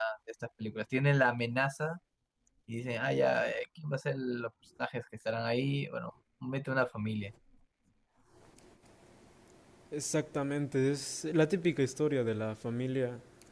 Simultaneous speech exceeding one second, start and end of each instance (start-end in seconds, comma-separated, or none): none